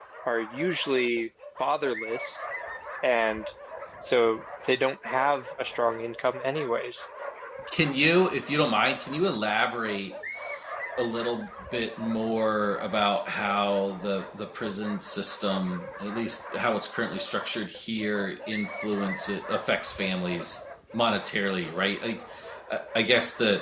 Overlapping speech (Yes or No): No